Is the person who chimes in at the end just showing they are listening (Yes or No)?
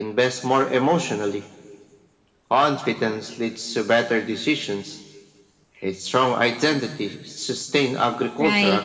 No